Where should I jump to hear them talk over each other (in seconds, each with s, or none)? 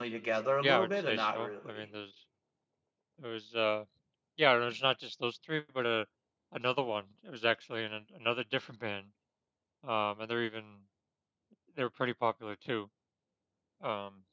0.6 s